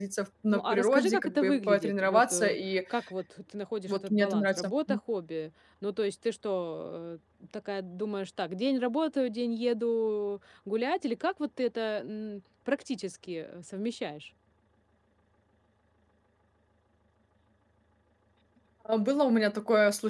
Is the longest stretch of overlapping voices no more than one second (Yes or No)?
No